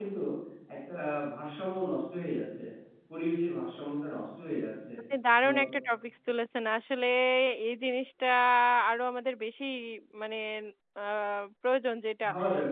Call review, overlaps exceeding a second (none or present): none